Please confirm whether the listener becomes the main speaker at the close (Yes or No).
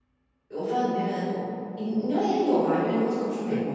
Yes